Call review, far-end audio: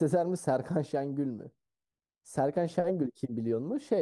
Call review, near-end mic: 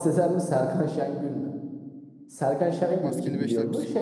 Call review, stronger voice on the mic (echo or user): echo